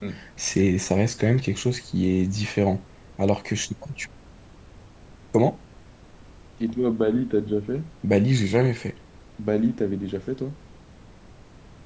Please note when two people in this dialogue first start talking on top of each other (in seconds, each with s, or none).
none